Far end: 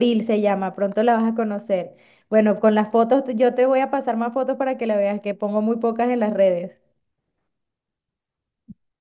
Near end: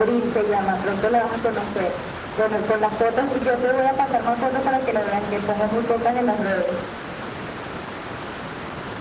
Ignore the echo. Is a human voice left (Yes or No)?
No